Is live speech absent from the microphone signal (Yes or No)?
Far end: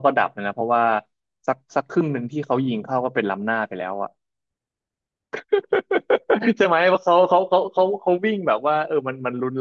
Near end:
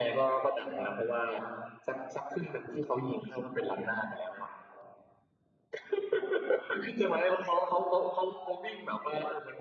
Yes